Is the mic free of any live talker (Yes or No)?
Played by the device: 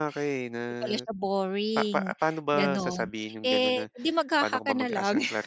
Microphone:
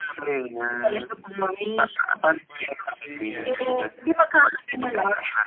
No